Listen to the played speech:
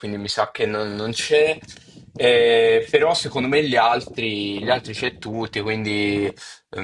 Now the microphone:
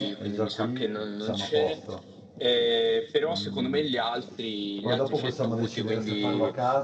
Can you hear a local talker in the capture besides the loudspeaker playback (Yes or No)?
Yes